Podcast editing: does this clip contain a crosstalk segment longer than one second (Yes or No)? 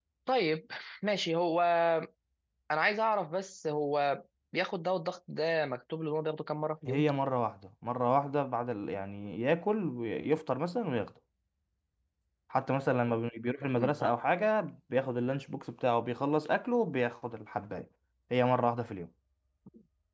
No